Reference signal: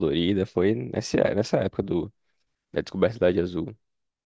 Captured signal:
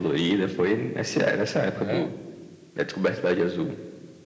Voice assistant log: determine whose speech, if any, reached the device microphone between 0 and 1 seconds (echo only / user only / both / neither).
echo only